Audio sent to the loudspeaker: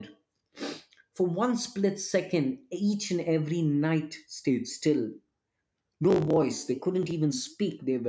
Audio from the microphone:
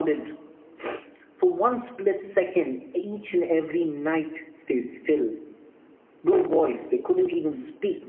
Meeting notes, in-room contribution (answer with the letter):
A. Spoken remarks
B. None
B